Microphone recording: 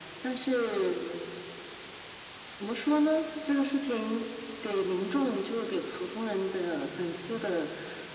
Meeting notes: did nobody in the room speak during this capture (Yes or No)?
Yes